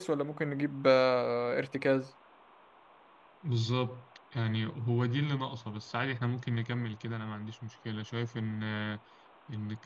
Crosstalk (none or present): none